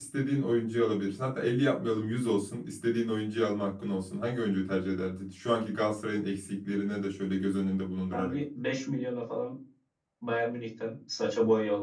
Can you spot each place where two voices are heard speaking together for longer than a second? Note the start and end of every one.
none

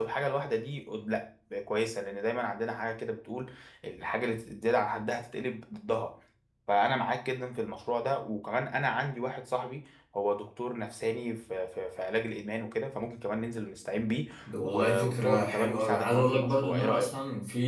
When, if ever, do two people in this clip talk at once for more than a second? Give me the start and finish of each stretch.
14.6-17.1

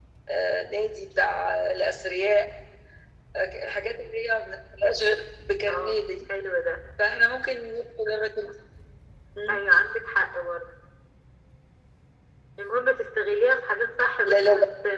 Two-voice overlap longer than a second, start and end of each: none

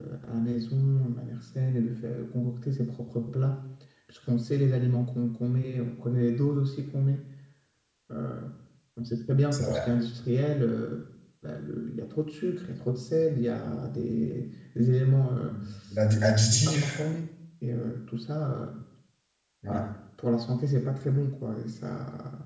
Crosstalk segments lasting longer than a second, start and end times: none

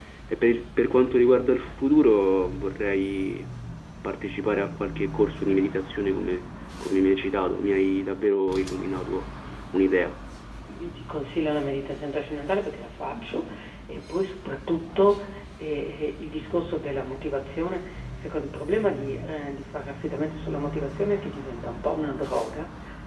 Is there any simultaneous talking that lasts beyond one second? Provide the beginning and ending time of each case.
none

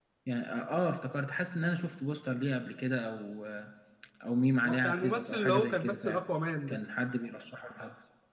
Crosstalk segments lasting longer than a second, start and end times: 4.6-6.2

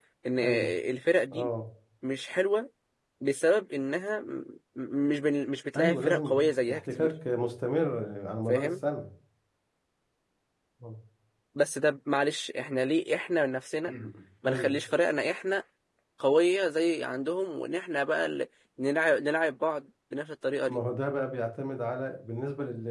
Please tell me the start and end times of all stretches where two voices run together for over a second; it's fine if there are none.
5.8-7.1

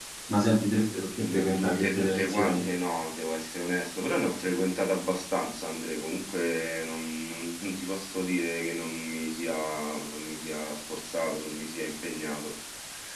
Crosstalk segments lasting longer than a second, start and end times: 1.2-2.7

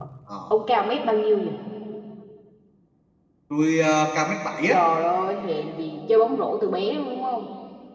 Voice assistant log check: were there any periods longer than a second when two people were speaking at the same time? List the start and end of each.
none

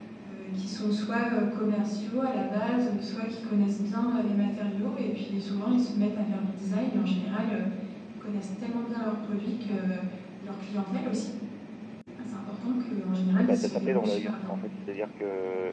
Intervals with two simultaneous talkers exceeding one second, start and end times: 13.4-14.6

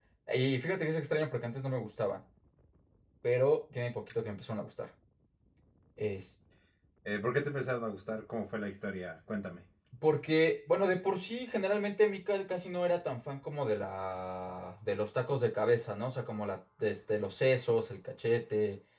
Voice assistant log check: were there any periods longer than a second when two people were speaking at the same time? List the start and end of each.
none

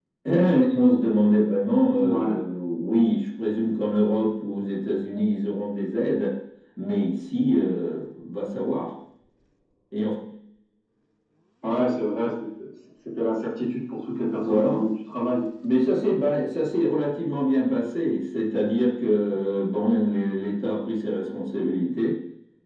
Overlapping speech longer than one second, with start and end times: none

